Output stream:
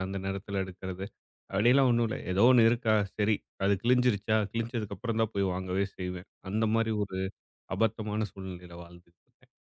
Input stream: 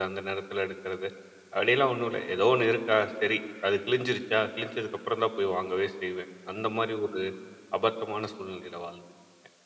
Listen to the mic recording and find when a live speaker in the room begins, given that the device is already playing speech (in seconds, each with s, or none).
none